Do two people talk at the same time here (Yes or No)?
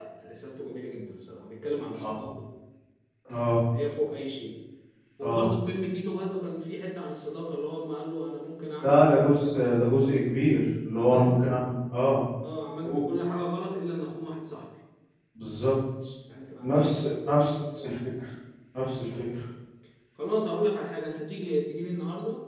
Yes